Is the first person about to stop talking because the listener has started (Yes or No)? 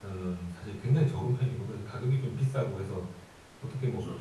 No